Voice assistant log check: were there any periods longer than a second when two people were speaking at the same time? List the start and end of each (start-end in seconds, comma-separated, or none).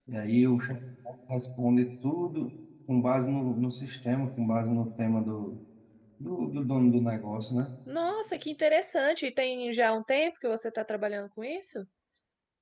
none